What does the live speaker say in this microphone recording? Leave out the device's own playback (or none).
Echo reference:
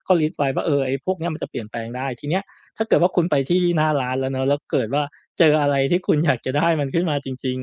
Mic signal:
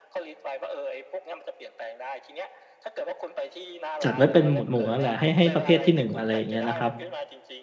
จัดไว้เป็นหมวดหมู่นั่นแหละให้ให้ประเภทที่หนึ่งอะไรอย่างเงี้ยนะครับ